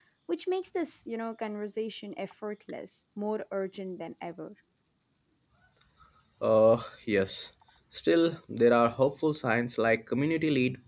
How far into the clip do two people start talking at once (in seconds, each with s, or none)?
none